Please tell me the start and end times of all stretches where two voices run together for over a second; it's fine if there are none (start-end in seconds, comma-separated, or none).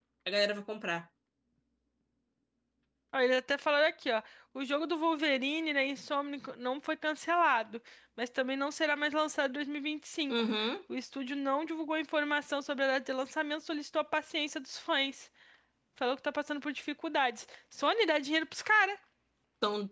none